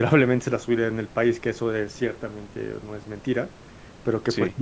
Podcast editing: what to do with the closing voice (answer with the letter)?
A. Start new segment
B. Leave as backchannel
B